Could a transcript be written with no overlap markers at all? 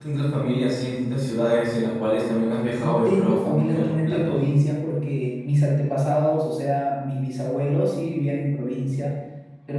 No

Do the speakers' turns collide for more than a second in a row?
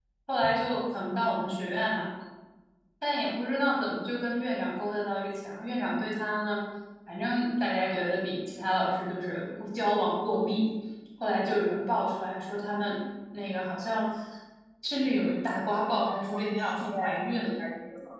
Yes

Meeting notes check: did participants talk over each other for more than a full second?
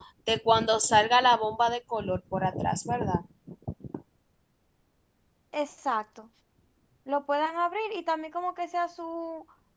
No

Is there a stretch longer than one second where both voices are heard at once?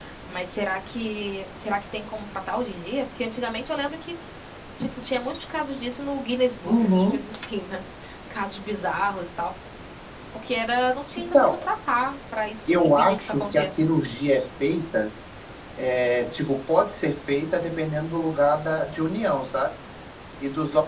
Yes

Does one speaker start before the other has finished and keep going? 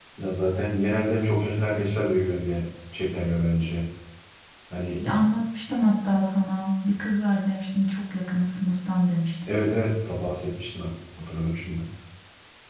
No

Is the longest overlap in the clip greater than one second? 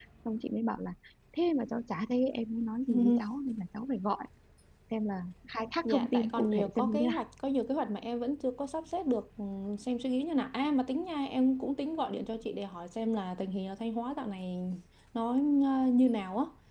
Yes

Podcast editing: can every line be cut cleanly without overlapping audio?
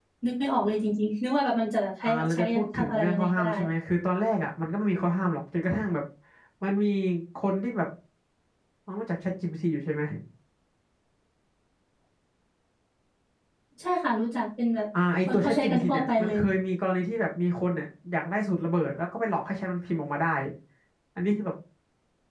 No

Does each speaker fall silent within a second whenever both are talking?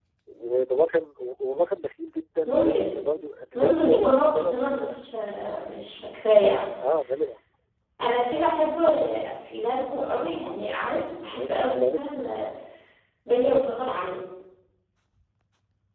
No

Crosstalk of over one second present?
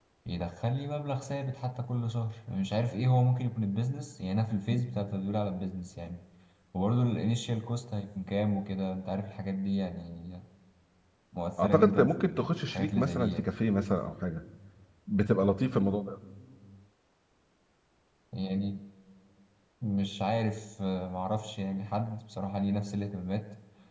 Yes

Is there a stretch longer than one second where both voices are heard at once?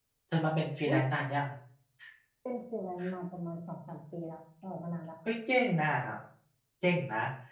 No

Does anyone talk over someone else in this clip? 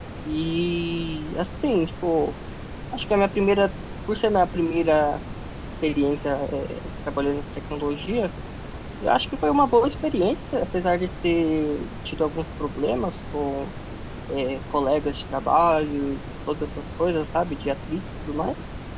No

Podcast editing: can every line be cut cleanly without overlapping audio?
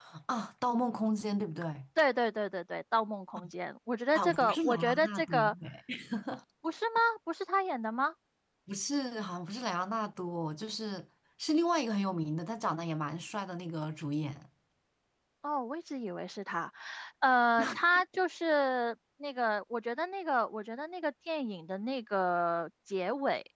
No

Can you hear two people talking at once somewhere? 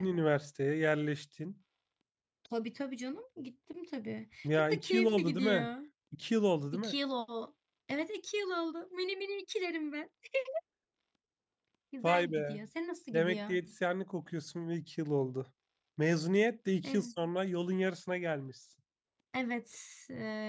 Yes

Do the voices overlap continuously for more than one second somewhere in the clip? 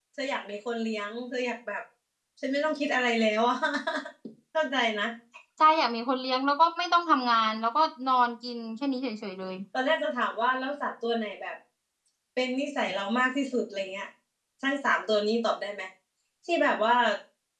No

